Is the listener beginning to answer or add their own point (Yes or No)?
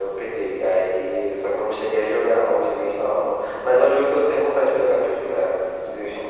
Yes